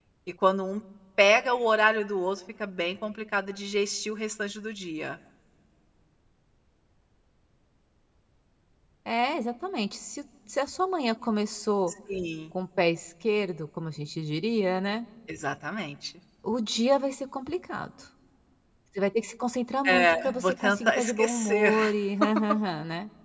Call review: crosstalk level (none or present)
present